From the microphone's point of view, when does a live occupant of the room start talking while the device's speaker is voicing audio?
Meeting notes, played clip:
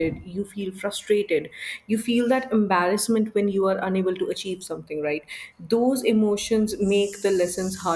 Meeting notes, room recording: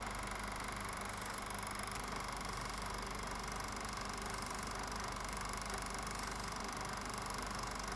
none

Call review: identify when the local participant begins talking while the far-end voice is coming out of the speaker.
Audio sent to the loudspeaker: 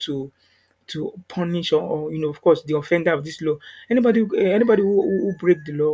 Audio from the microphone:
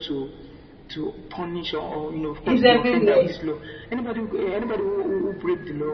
2.4 s

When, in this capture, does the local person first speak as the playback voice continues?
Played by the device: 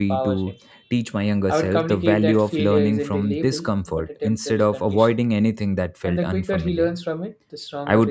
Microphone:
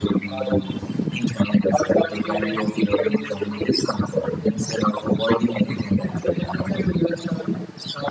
none

